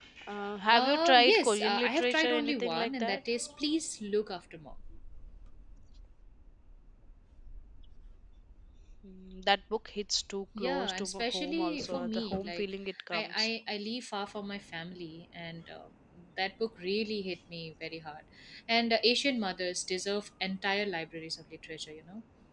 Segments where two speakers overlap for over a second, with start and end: 0.7-3.2, 10.6-12.6

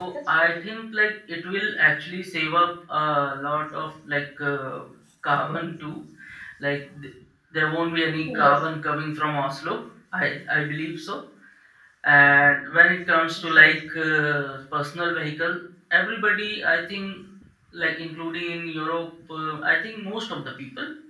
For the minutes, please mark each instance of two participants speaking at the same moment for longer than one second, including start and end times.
none

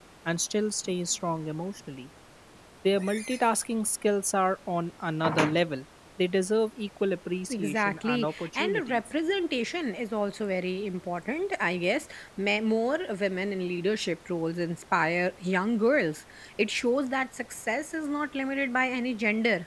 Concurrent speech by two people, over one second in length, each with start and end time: 7.5-9.0

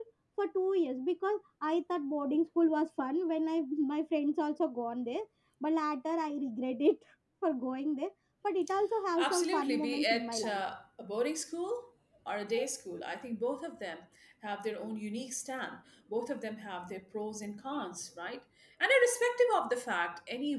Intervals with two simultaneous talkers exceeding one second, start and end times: 9.2-10.6

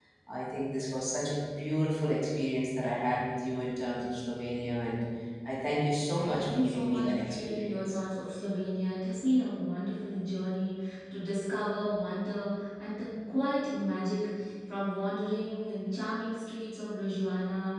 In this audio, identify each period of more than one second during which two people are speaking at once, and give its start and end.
6.2-8.0

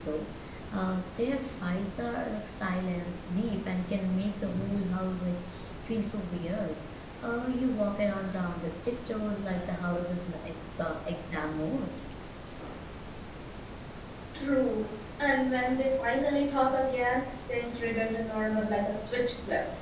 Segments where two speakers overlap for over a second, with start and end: none

